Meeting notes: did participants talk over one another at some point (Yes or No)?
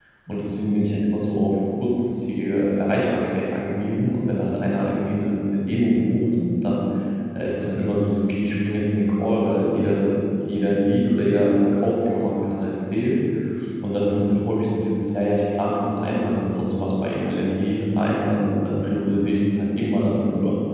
No